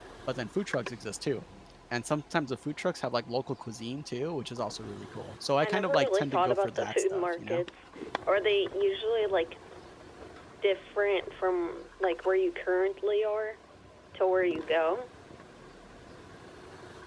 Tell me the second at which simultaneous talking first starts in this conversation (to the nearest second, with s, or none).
6 s